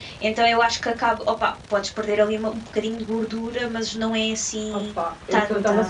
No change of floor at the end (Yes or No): No